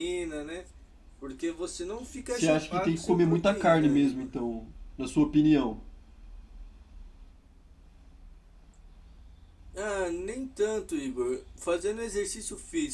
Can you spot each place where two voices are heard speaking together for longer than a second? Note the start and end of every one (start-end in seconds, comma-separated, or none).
2.3-4.3